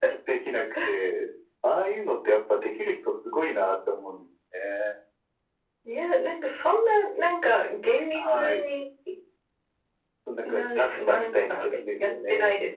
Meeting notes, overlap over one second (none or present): present